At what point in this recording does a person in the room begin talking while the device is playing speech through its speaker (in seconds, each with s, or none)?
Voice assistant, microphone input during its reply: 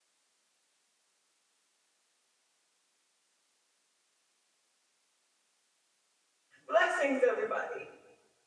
6.7 s